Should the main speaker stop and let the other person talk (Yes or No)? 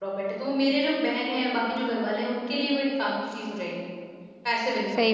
Yes